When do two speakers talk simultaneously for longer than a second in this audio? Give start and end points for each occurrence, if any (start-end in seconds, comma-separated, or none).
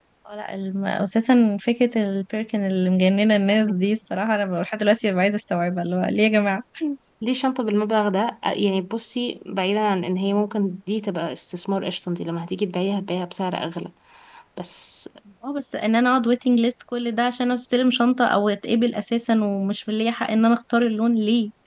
none